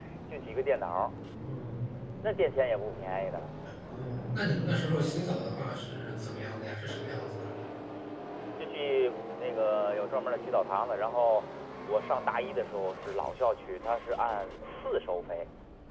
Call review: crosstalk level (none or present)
none